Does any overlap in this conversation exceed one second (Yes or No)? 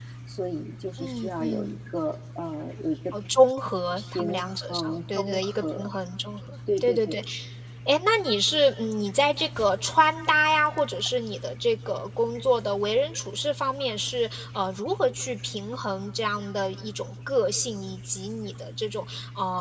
Yes